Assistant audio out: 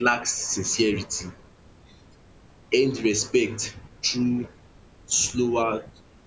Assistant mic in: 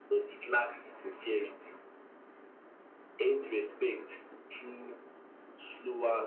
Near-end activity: none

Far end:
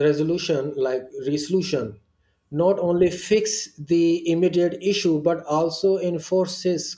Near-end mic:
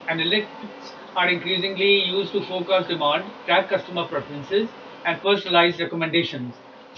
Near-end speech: present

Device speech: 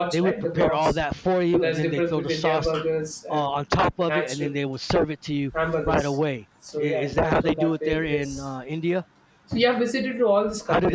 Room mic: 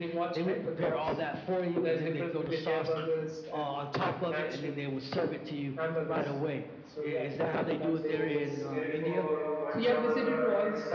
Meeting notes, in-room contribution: present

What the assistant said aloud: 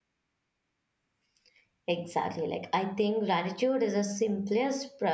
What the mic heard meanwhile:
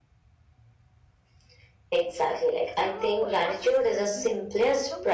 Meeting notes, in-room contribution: present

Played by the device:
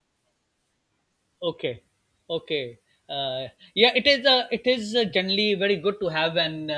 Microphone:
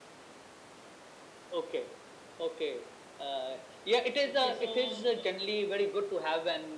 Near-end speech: present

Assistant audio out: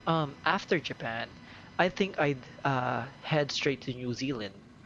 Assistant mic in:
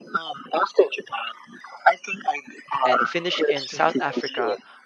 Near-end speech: present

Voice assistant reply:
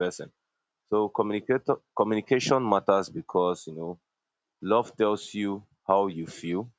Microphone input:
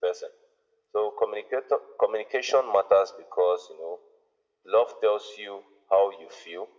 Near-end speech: none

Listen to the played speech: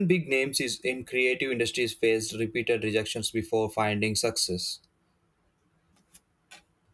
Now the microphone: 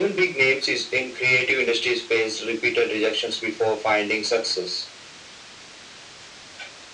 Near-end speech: none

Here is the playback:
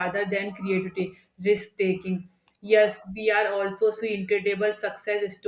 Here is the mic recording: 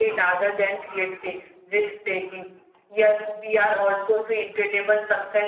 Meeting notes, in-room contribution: none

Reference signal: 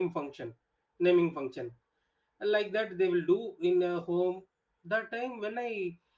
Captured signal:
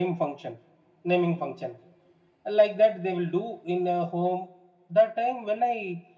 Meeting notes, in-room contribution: none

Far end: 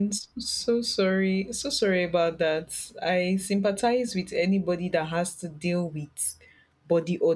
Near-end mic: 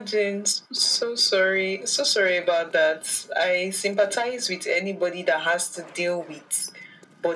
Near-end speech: none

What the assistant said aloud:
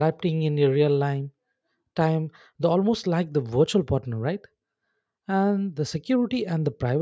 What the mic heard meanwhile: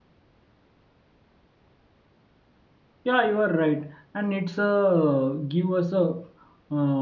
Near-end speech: present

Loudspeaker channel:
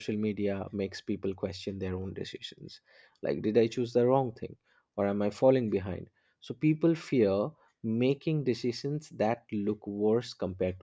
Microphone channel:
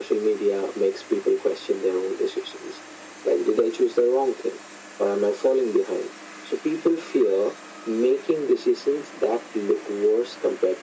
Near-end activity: none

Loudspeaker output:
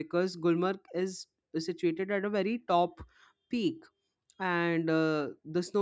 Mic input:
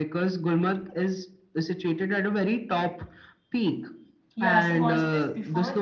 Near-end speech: present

